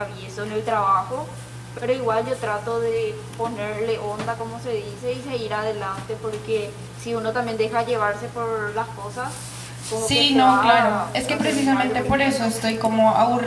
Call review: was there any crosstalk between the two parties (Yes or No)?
Yes